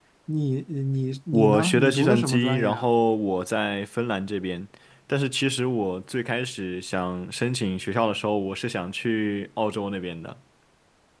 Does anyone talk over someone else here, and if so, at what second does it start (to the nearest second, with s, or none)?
1 s